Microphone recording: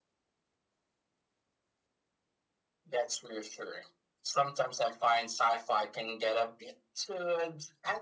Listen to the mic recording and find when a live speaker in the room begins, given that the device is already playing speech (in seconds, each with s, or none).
none